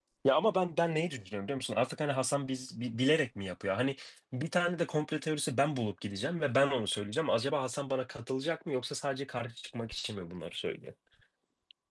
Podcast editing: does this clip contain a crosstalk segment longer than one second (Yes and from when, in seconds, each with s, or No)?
No